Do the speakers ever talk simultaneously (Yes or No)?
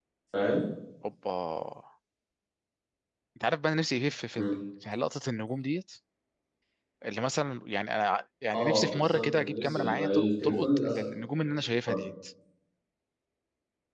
Yes